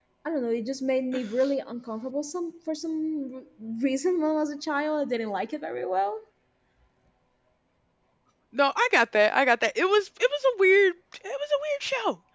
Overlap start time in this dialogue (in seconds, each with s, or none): none